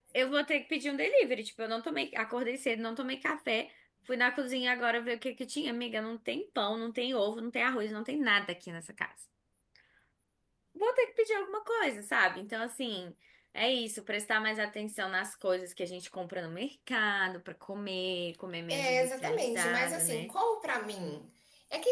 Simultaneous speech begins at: 19 s

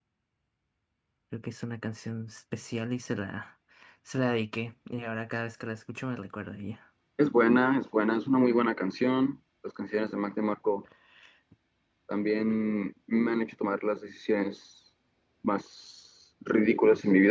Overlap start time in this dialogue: none

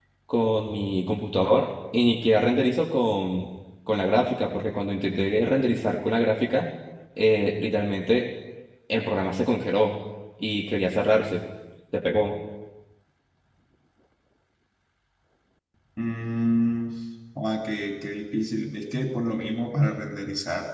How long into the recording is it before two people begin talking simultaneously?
none

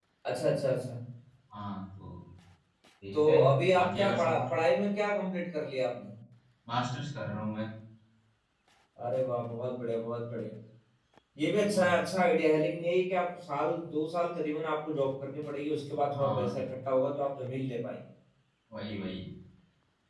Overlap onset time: 3 s

